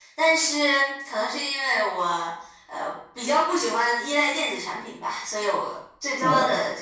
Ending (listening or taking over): listening